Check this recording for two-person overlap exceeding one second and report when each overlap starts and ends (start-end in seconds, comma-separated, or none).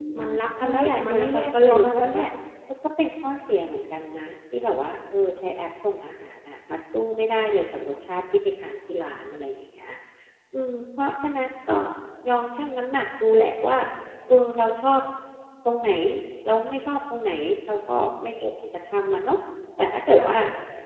0.6-2.2